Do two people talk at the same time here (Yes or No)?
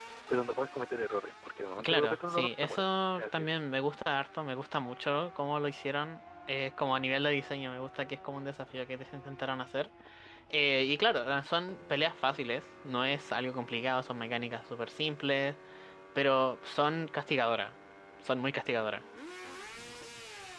Yes